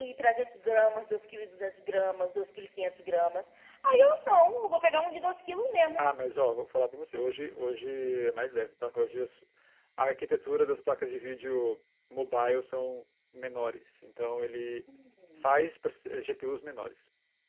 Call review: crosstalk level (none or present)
none